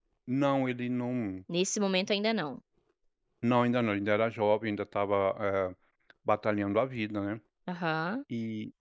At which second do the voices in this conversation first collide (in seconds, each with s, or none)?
none